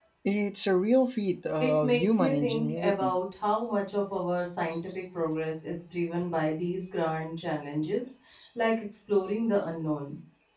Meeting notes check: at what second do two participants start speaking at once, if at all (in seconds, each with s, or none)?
1.6 s